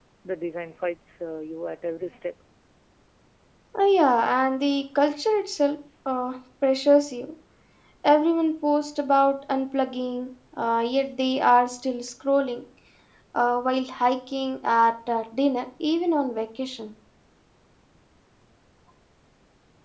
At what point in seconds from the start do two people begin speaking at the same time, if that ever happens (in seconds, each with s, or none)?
none